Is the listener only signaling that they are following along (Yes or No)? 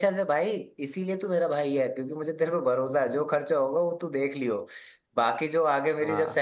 Yes